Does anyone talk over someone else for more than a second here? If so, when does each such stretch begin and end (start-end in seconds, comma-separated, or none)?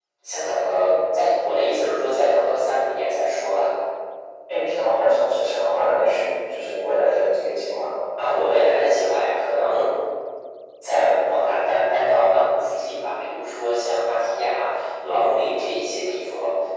none